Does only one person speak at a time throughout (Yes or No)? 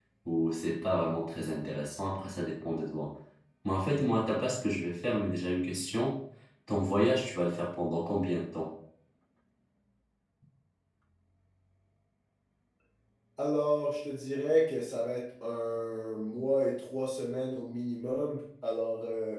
Yes